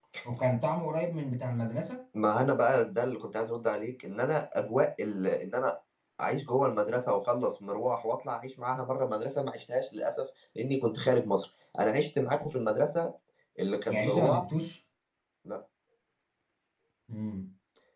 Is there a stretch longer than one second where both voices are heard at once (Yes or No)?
No